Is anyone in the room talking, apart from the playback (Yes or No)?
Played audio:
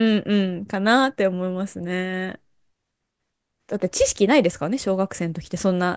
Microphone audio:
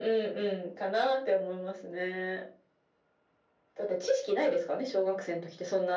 No